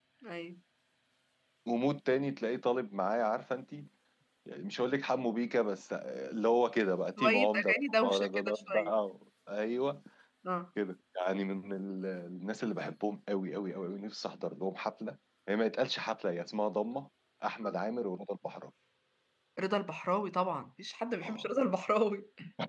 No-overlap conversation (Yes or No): No